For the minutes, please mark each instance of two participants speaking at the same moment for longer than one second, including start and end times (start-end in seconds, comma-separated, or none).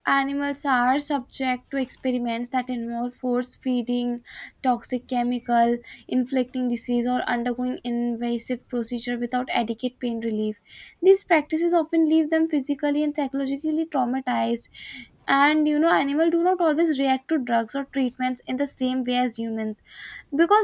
none